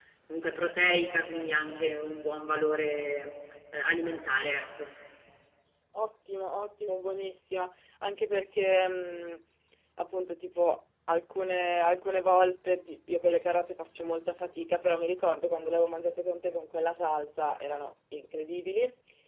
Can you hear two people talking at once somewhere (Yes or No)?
No